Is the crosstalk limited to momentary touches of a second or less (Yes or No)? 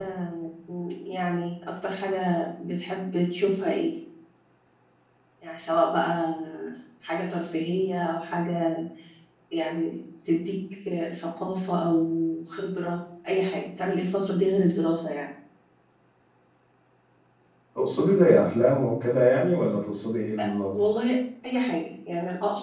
Yes